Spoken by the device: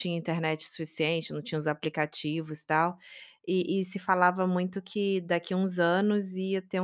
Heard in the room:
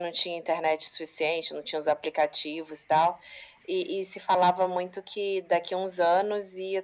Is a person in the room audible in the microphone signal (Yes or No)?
No